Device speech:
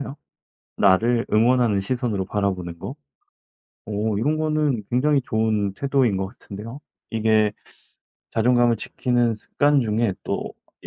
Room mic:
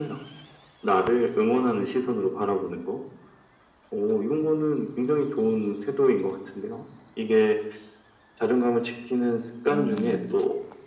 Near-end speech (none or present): present